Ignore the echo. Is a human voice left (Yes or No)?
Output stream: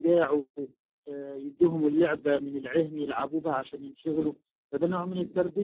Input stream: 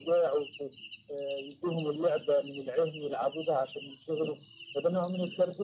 No